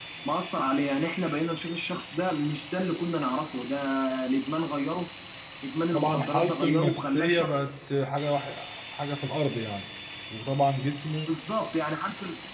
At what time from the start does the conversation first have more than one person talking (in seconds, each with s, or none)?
5.9 s